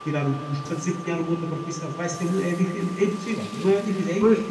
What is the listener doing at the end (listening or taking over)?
taking over